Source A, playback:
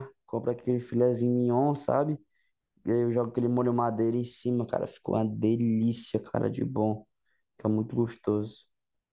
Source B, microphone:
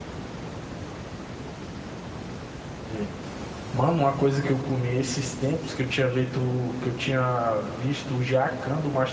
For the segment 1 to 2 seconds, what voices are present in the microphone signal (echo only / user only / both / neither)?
neither